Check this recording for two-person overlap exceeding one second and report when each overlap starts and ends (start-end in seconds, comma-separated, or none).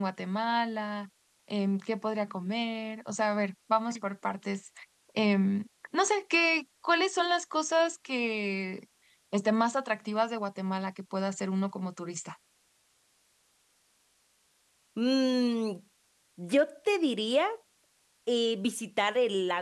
none